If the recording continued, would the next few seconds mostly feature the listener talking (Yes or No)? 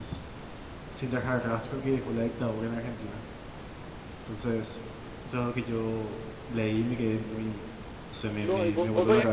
Yes